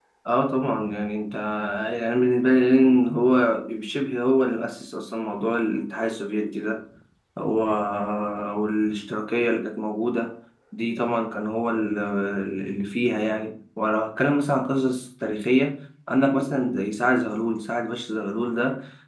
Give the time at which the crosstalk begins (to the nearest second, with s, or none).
none